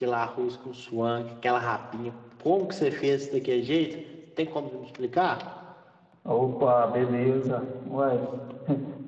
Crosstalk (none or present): none